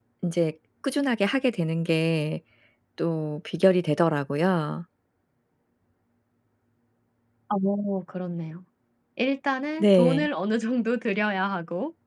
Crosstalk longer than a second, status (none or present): none